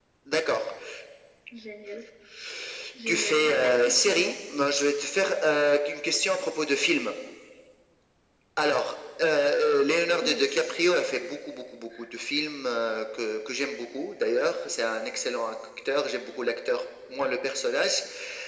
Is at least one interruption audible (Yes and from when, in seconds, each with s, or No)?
Yes, from 3.1 s